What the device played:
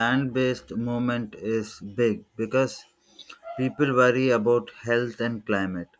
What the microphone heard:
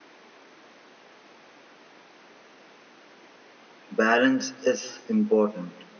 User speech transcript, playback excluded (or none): Balance is important.